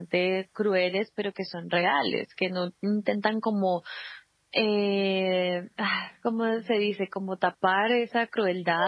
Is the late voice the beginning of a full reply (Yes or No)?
No